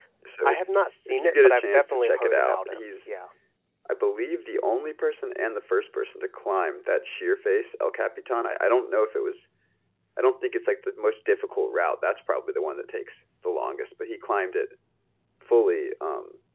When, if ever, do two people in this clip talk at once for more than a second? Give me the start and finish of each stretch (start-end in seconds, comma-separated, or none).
1.1-3.1